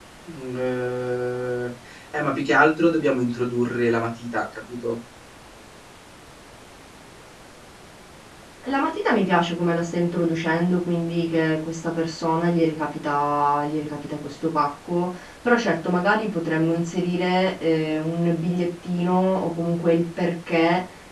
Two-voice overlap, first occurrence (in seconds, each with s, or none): none